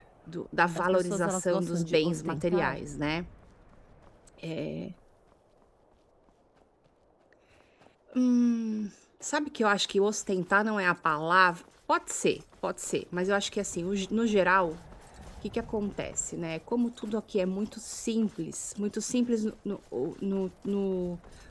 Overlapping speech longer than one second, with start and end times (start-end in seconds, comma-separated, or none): 0.8-2.8